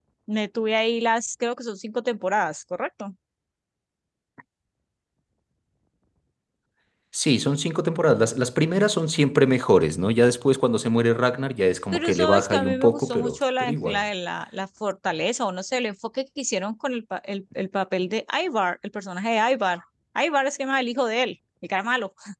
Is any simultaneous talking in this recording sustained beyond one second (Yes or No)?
Yes